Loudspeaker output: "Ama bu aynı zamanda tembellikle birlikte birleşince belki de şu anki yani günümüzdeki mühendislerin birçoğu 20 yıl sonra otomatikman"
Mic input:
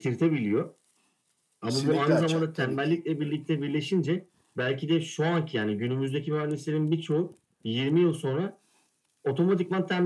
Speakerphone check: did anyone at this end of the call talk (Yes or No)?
Yes